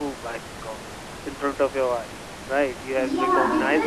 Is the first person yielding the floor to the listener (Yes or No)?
Yes